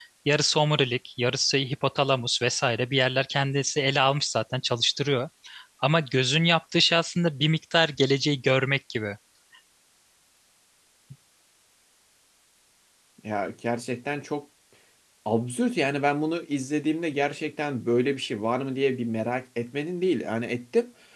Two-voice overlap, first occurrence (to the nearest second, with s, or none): none